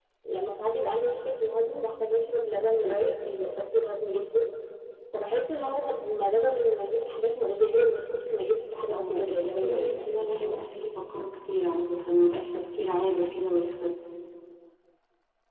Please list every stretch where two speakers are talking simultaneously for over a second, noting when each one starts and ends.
8.9-10.6

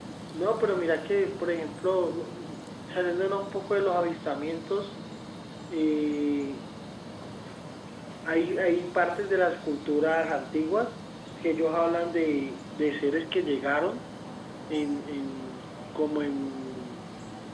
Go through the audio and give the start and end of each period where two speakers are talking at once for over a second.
none

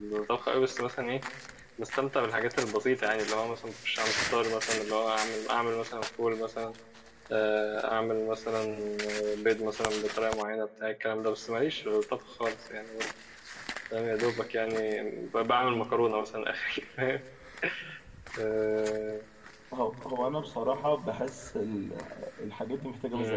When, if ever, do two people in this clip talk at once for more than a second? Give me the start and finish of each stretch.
none

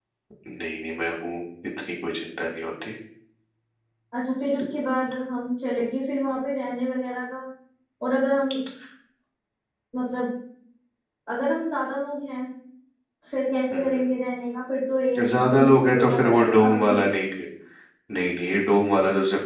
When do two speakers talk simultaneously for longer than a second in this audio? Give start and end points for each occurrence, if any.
15.2-17.0

